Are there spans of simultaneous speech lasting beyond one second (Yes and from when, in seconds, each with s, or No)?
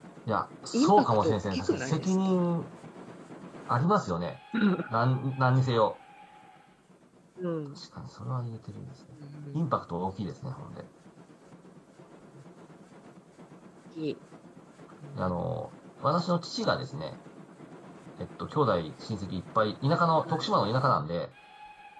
Yes, from 0.7 s